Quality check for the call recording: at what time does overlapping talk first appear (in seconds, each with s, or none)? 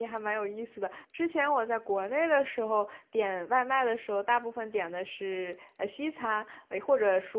none